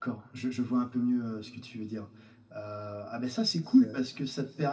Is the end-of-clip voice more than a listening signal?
No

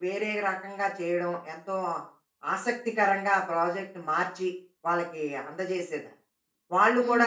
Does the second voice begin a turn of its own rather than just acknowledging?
Yes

